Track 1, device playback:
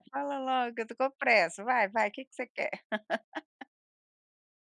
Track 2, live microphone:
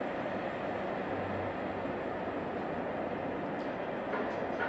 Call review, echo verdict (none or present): none